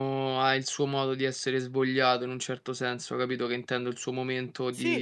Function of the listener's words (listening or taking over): listening